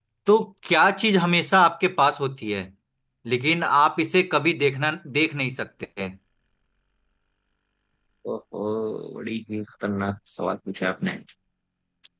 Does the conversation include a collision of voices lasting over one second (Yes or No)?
No